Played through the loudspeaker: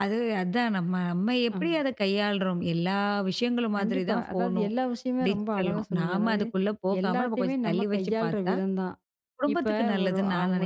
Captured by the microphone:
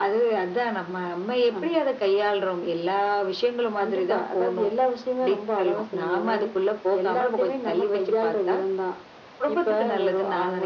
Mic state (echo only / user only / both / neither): echo only